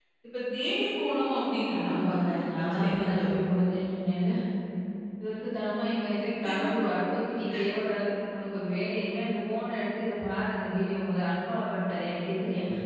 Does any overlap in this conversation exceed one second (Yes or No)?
Yes